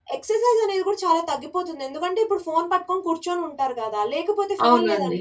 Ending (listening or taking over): listening